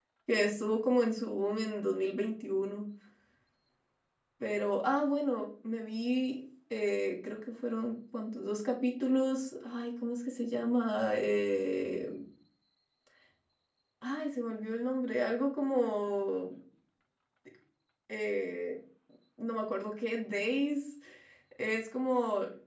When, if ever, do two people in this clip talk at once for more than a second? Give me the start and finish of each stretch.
none

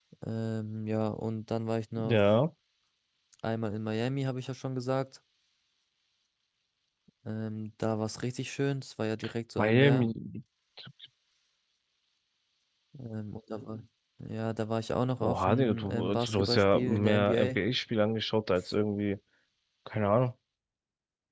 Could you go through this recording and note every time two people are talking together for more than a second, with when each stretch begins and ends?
15.2-17.6

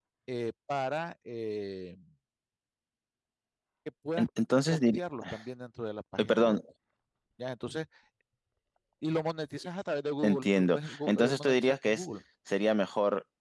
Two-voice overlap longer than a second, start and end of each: 10.2-12.1

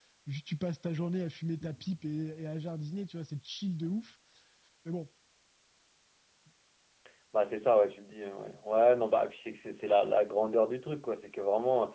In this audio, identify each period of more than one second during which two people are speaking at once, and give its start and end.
none

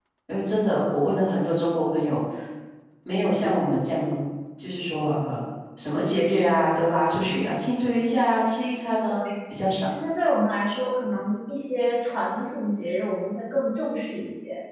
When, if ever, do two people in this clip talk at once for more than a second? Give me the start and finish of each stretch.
none

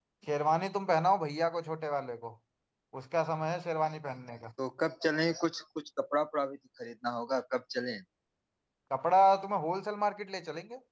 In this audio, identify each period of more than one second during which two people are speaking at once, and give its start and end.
none

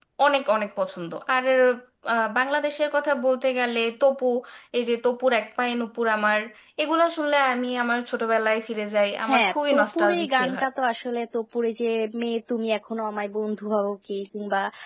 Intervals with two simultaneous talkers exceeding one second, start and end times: 9.3-10.7

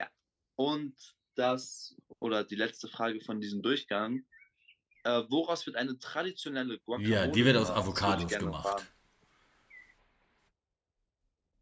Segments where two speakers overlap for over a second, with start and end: 7.0-8.8

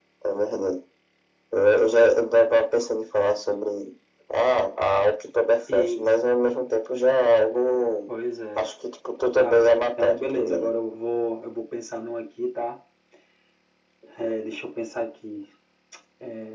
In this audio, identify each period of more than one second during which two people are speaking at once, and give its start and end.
9.3-10.7

